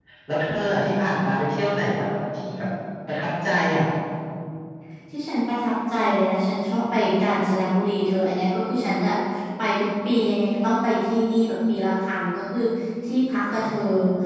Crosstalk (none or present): none